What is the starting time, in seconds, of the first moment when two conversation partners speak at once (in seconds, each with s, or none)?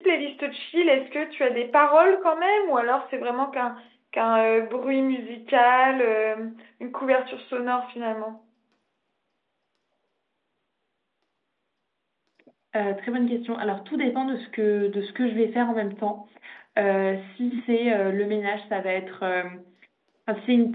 none